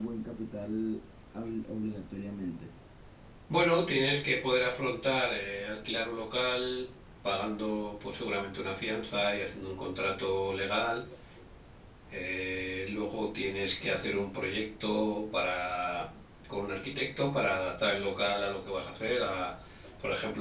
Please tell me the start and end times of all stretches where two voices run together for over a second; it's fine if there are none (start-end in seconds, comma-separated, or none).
none